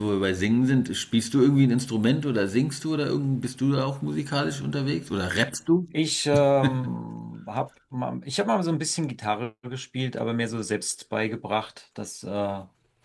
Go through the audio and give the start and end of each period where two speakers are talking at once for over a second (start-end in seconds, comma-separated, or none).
none